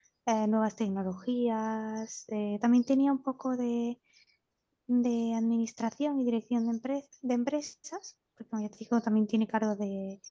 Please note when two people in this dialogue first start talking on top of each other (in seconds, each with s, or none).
none